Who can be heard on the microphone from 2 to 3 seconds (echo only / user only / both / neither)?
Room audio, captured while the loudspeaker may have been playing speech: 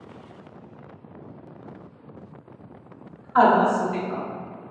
neither